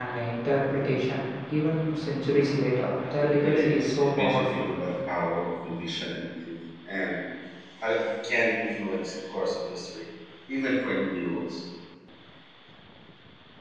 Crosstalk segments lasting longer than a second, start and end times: 3.3-4.6

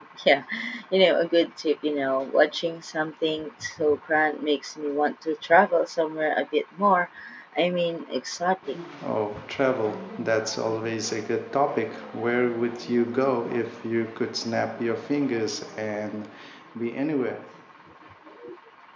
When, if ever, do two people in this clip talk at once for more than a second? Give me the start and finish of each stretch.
none

